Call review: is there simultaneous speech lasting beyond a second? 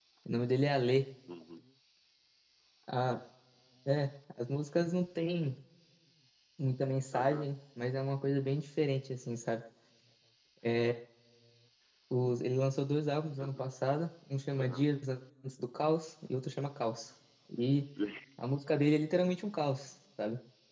No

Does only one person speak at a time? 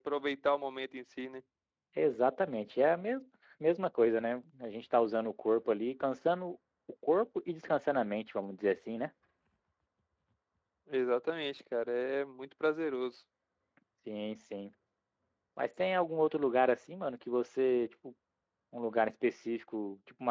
Yes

